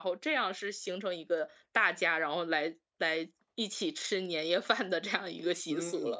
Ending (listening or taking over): taking over